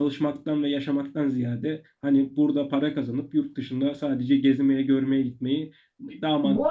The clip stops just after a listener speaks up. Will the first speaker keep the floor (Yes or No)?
No